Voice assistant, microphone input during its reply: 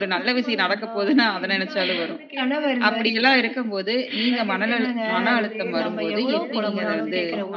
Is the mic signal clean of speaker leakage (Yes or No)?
No